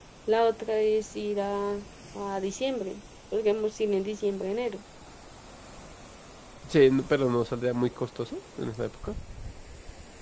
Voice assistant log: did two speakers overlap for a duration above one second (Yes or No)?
No